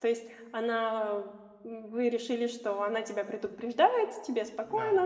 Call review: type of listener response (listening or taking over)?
listening